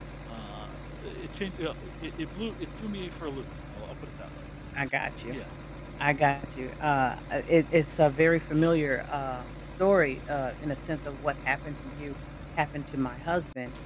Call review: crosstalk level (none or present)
none